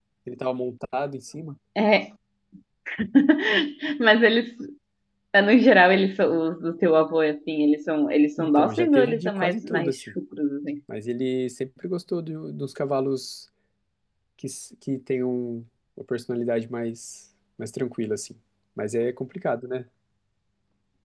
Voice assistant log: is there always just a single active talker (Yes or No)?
No